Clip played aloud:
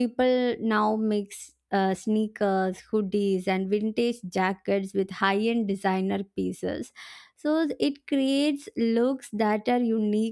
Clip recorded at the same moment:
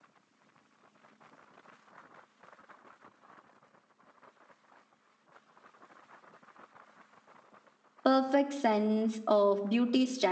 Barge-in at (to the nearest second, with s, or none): 8 s